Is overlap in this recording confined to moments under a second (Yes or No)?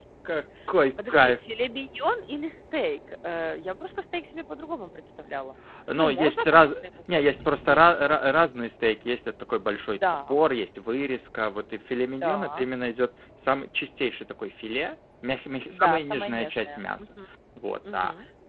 No